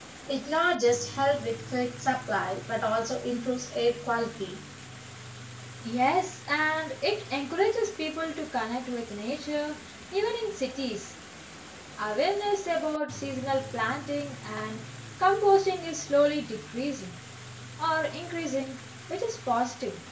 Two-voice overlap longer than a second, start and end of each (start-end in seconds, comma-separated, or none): none